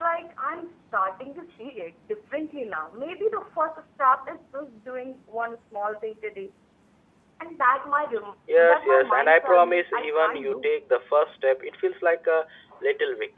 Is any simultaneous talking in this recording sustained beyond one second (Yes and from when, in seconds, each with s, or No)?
Yes, from 8.5 s